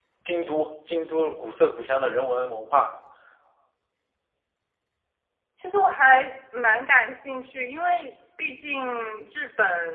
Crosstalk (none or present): none